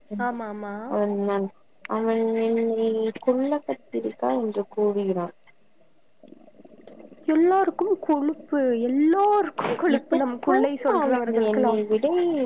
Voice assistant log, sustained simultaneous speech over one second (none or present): present